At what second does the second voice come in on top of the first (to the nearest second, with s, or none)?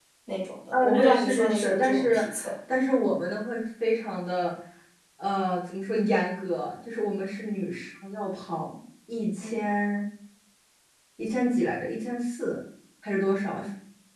1 s